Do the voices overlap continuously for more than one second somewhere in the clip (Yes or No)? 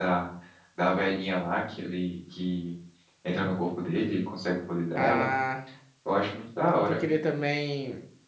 No